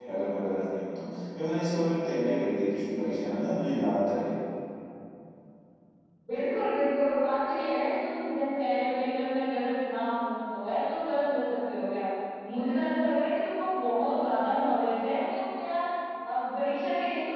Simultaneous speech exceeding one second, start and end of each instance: none

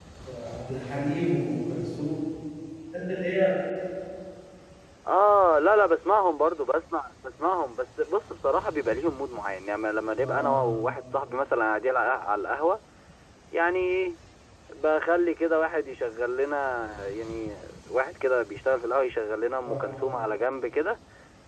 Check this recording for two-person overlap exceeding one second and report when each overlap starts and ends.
none

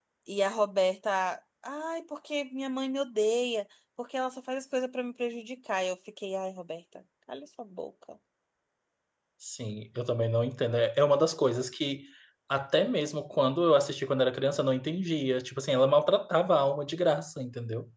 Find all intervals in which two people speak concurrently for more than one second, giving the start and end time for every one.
none

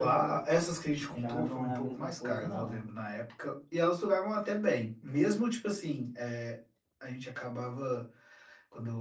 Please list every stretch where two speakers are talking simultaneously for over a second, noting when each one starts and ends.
1.1-2.9

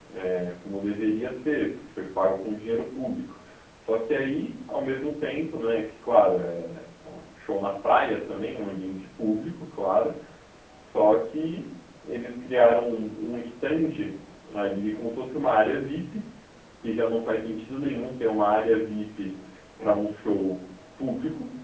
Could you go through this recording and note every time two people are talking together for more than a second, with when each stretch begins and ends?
none

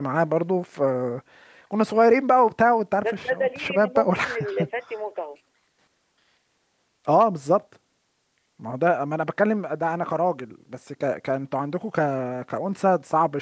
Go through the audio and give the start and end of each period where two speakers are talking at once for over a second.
3.0-4.4

